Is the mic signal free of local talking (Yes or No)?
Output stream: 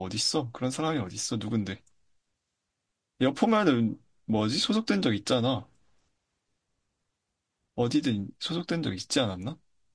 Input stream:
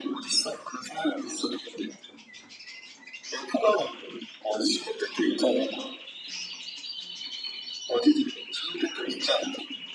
Yes